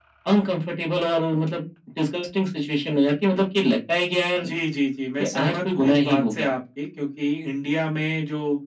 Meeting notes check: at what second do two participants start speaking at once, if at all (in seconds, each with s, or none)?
5.2 s